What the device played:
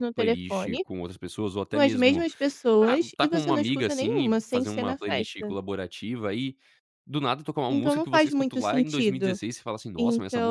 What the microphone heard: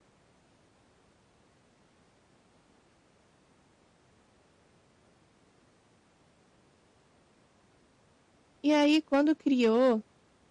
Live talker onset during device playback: 9 s

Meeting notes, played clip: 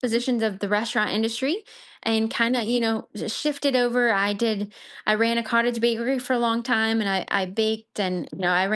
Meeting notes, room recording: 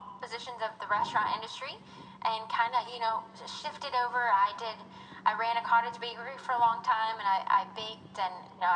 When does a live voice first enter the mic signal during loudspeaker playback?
none

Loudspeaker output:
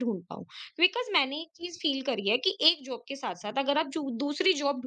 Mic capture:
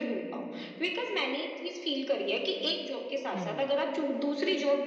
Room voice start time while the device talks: 3 s

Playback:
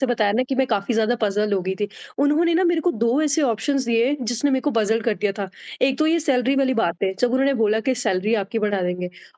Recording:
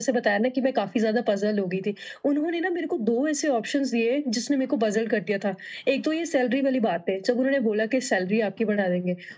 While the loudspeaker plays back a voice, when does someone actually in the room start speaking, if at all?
none

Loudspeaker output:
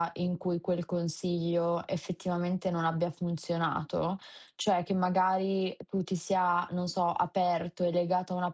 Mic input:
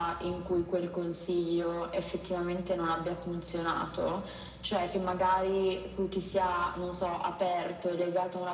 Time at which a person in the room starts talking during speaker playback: none

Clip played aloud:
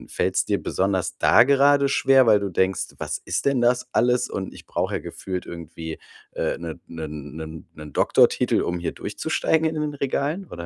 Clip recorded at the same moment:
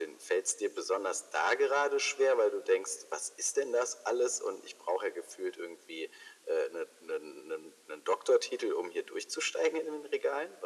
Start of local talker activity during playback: none

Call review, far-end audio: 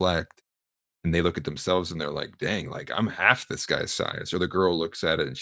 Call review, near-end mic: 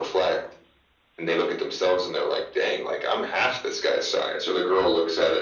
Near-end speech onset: none

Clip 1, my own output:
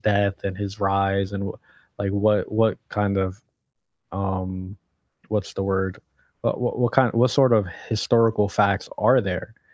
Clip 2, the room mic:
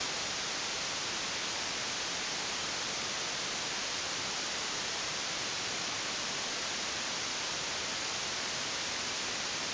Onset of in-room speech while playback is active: none

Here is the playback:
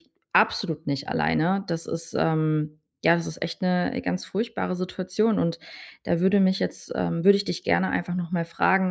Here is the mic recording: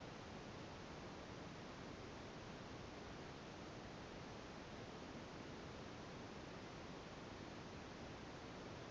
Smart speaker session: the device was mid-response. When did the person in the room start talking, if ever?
none

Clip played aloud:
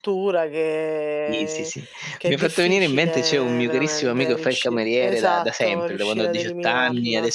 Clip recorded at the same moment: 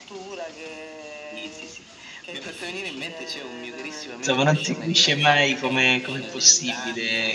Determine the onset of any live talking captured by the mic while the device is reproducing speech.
4 s

